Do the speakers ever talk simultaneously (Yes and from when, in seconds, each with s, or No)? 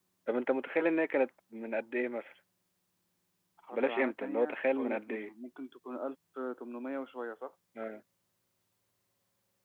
Yes, from 3.7 s